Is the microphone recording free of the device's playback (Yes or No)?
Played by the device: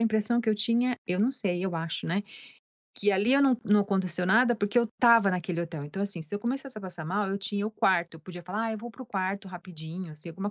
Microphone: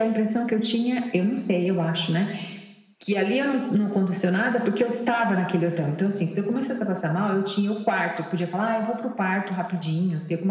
No